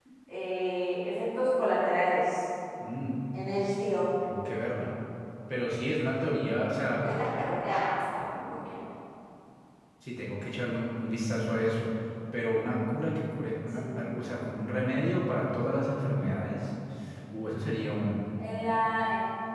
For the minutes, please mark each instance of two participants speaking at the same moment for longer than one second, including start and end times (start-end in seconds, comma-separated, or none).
none